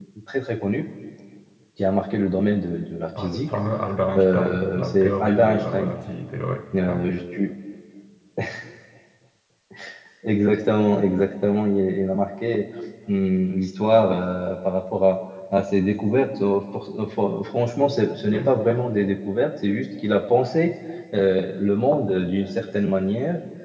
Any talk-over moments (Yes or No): Yes